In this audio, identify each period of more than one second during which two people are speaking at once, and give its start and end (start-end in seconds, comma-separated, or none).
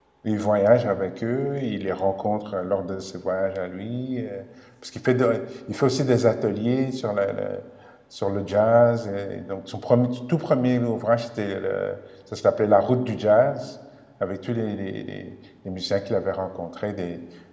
none